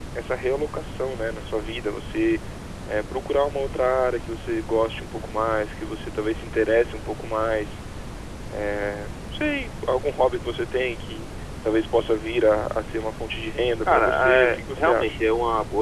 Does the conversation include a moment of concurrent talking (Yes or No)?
Yes